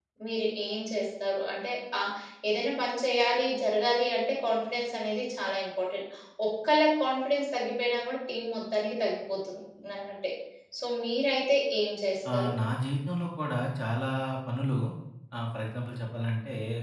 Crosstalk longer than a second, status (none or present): none